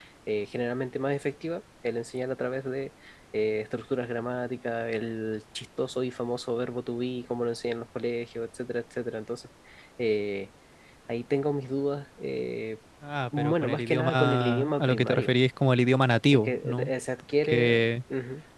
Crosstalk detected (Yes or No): Yes